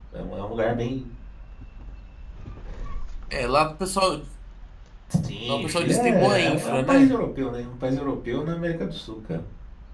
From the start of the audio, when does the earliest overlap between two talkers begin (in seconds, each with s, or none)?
5.5 s